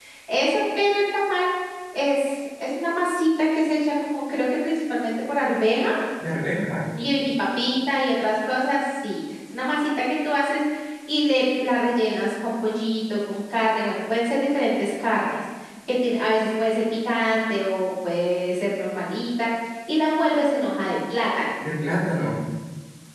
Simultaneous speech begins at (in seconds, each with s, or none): none